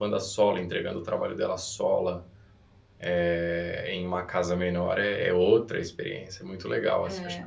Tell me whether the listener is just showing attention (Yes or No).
No